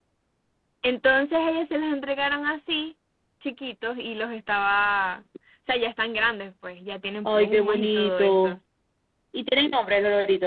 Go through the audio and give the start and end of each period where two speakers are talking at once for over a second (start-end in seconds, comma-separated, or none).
7.2-8.6